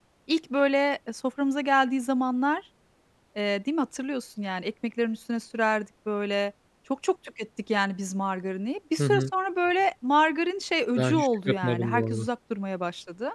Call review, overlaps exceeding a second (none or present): present